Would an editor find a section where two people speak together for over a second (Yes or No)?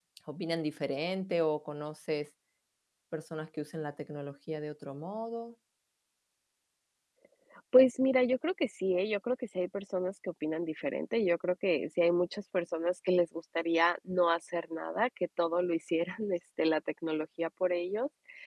No